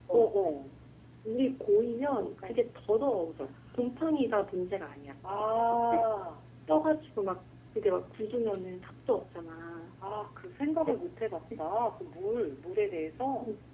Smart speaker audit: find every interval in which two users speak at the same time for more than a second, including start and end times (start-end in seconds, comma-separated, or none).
none